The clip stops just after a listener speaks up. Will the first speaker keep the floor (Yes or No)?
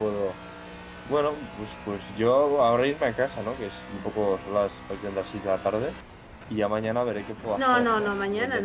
No